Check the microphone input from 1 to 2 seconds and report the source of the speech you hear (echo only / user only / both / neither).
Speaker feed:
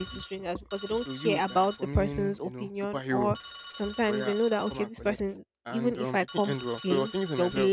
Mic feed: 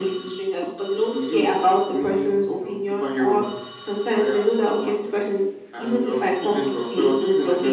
echo only